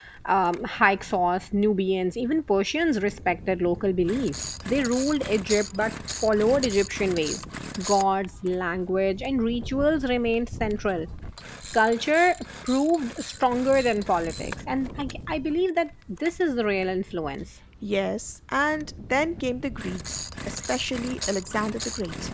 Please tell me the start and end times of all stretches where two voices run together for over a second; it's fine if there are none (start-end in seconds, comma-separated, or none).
none